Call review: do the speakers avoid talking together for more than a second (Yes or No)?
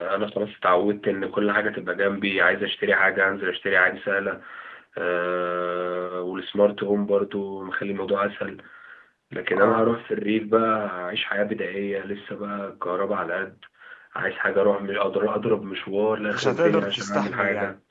No